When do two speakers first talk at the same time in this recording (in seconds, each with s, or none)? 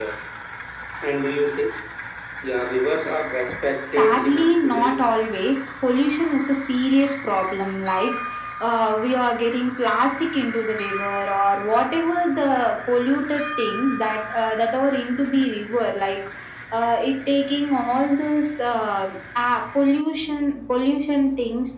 3.8 s